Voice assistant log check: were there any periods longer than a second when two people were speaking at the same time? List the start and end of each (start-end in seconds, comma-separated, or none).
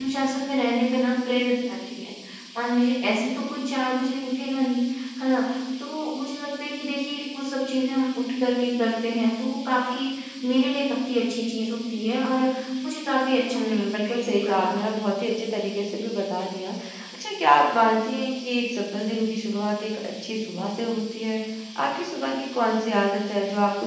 13.5-14.7